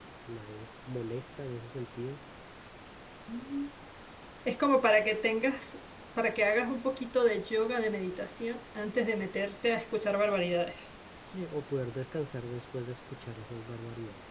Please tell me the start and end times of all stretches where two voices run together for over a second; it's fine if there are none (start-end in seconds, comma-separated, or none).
none